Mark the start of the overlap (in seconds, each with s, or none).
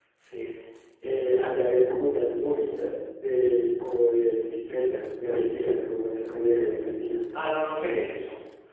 none